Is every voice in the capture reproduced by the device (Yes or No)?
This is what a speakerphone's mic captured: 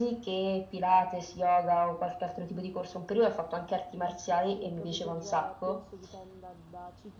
No